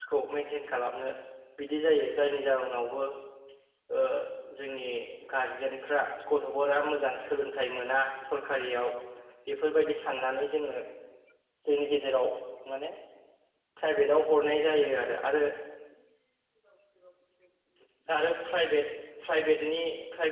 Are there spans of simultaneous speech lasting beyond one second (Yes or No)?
No